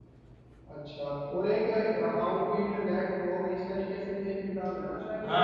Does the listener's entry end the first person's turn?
Yes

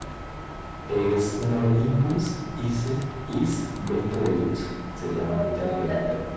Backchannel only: No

